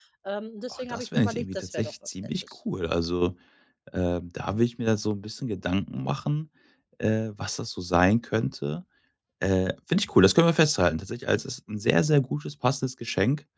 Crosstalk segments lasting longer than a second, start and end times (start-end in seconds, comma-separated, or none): 0.7-2.5